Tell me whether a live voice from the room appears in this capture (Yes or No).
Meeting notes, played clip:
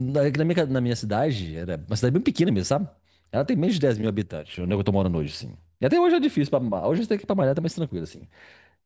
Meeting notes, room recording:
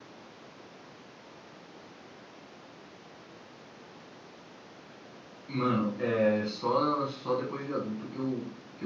Yes